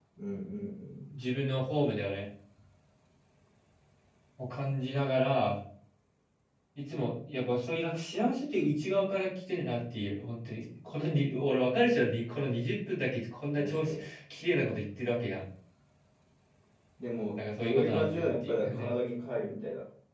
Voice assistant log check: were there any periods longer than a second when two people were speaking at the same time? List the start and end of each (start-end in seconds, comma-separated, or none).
17.4-19.0